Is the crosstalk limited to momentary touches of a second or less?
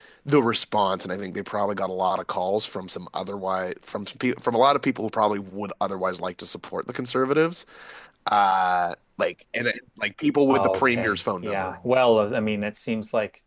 No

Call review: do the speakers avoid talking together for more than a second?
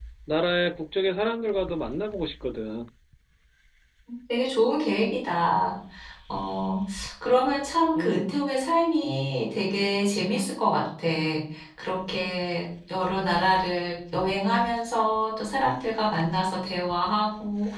Yes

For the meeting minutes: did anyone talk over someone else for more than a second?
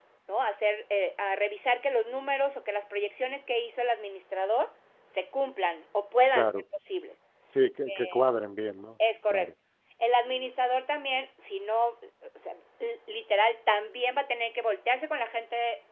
No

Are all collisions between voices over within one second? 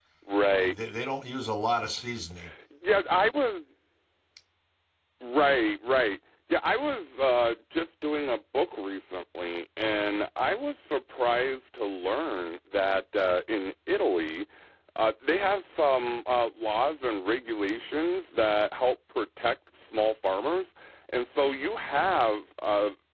Yes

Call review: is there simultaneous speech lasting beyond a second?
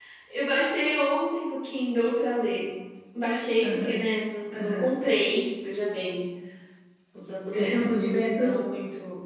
Yes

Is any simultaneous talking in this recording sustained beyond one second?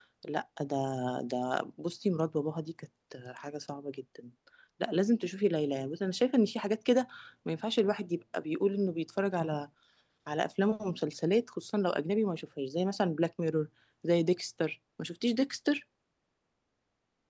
No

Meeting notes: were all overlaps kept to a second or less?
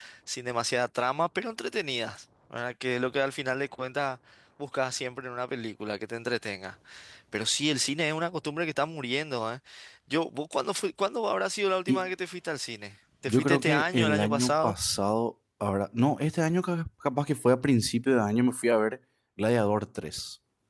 No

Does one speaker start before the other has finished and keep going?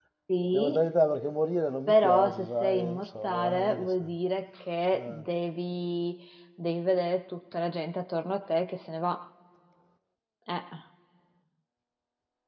Yes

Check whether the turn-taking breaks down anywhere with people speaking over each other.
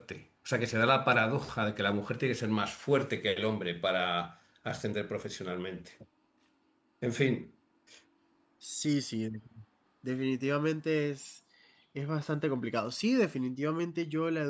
No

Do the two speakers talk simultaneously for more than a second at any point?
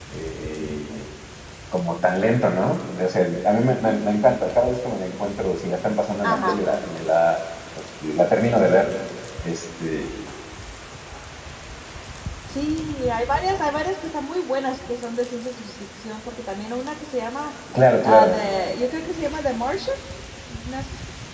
No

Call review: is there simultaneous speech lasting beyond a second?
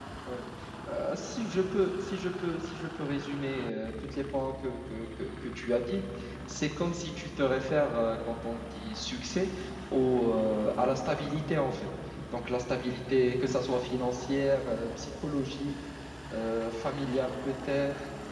No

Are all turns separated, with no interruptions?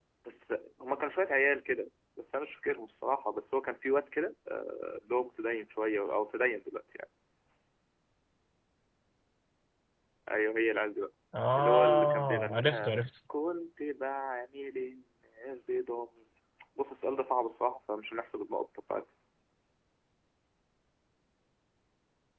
No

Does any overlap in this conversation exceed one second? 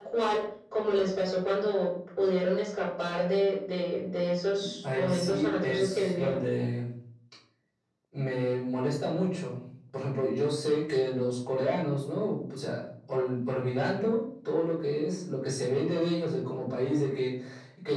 Yes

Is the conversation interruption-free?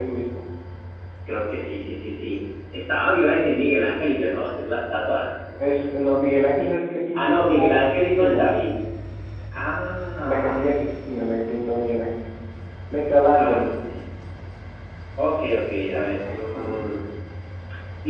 No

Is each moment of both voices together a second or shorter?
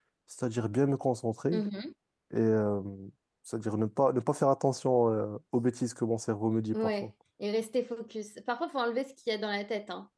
Yes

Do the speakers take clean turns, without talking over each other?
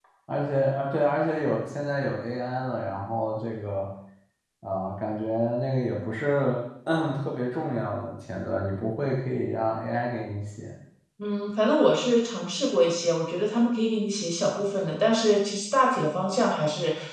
Yes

